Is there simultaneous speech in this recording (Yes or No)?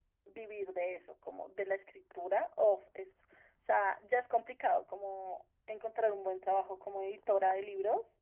No